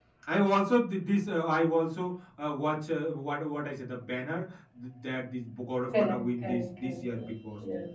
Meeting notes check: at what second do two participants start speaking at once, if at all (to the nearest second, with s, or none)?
6 s